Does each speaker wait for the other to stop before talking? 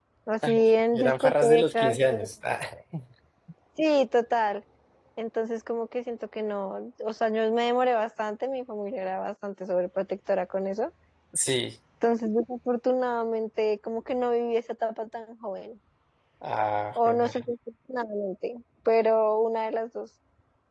No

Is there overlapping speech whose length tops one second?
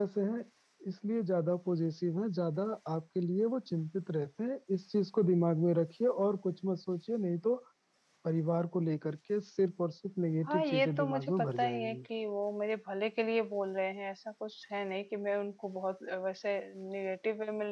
Yes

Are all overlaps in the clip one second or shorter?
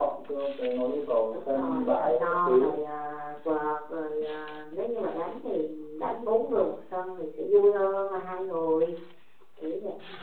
No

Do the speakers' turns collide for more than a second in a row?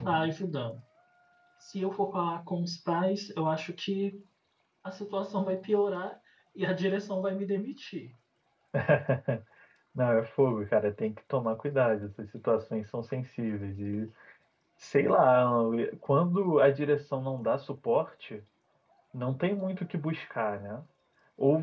No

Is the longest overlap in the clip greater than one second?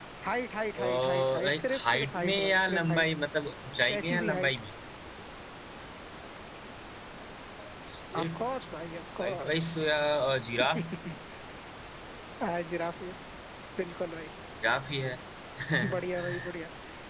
Yes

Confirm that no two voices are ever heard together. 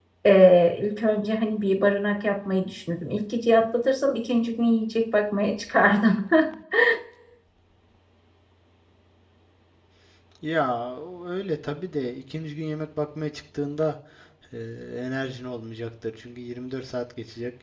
Yes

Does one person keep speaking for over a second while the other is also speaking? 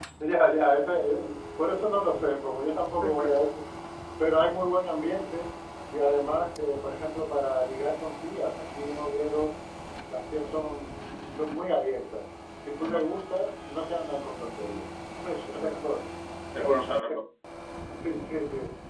No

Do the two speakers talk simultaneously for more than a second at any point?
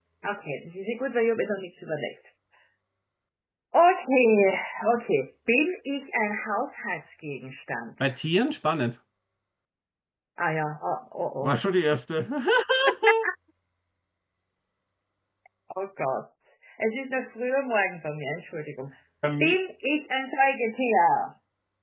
No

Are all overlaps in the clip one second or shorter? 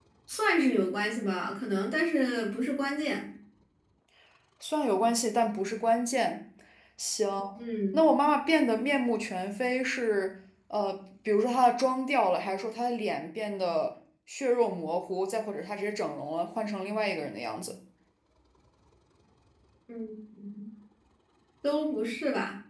Yes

